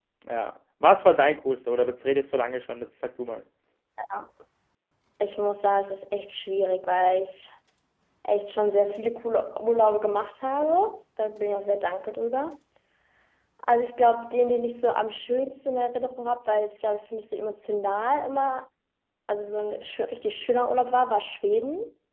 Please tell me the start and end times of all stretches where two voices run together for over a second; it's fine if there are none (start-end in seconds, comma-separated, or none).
none